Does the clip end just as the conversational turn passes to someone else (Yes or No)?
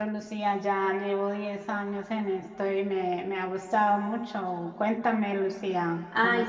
Yes